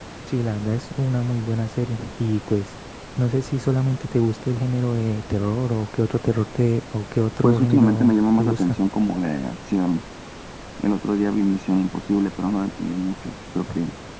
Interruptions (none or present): present